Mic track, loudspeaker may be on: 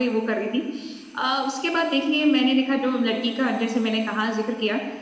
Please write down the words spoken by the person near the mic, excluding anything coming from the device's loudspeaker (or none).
none